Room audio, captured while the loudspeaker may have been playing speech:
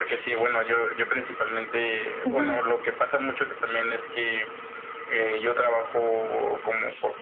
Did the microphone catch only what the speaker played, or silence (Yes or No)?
No